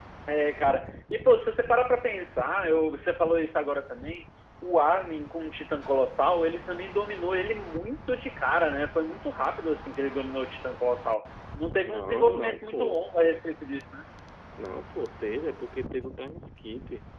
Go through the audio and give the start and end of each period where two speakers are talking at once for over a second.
11.8-13.0

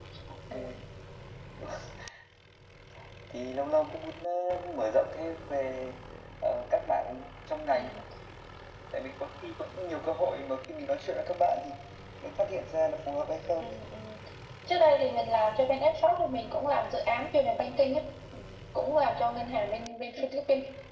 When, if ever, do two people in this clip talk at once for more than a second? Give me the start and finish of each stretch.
none

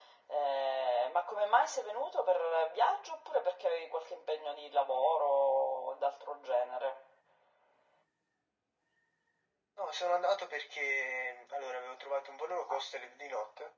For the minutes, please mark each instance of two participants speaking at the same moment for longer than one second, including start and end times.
none

